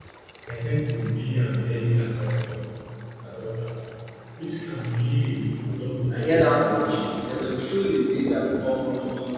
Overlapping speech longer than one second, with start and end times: 6.1-7.5

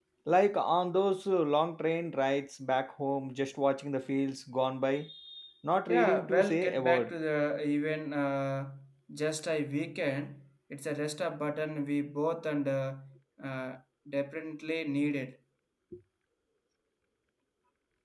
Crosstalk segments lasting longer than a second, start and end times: 5.9-7.1

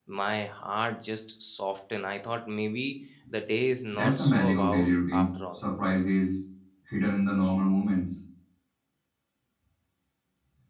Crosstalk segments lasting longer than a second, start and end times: 3.9-5.6

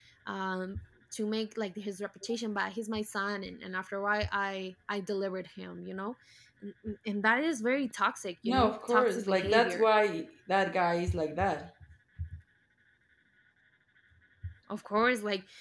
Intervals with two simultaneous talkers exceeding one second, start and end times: 8.4-9.8

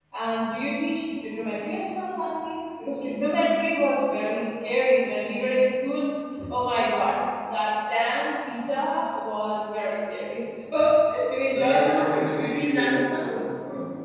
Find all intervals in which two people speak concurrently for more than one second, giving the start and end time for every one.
11.6-13.3

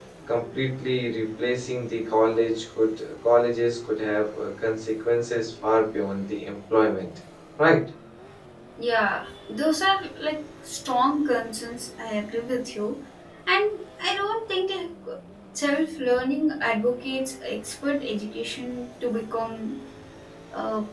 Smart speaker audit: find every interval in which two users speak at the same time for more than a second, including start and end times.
none

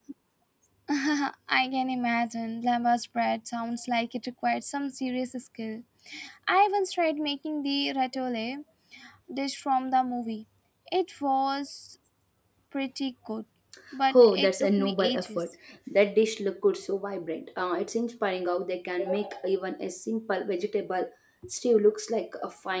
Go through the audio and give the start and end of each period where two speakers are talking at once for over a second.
14.1-15.5

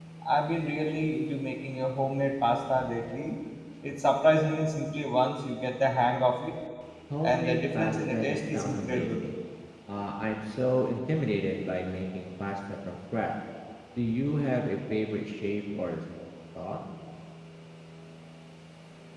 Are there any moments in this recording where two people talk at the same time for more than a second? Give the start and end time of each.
7.2-9.1

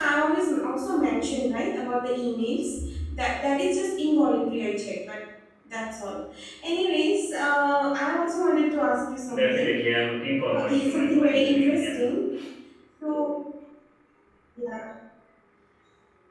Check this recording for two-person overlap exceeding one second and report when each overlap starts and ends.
10.5-12.0

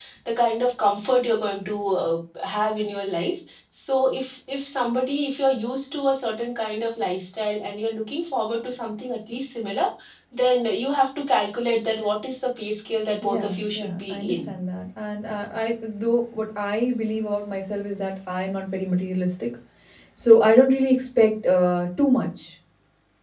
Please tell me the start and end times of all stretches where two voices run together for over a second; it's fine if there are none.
13.2-14.5

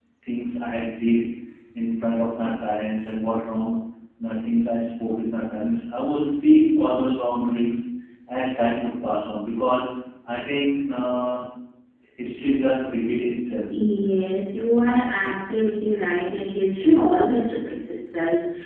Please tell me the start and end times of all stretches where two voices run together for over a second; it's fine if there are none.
none

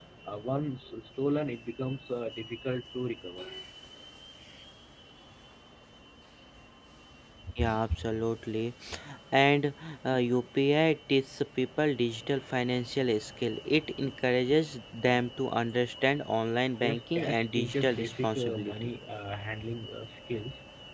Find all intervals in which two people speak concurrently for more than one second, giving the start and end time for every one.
16.8-18.9

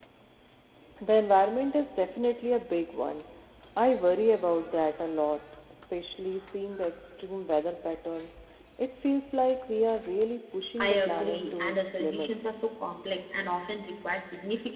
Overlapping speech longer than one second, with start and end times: 10.8-12.6

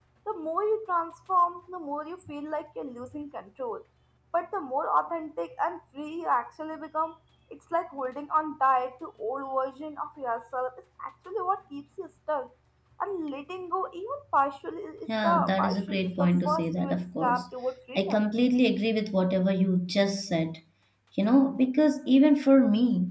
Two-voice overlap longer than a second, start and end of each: 15.2-17.4

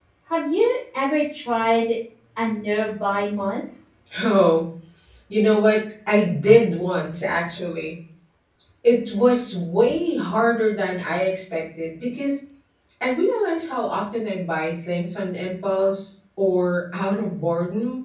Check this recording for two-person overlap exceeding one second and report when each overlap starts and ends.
none

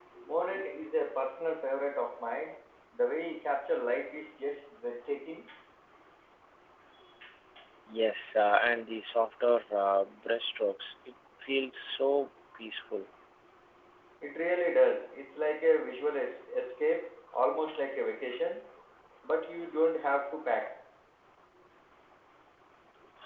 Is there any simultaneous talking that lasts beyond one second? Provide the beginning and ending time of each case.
none

